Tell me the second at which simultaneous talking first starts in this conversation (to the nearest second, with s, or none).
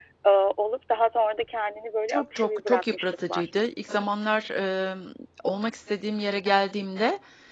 2 s